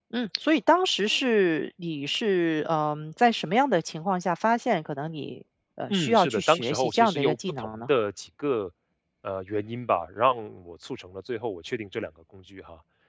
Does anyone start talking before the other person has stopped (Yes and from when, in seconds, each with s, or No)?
Yes, from 5.9 s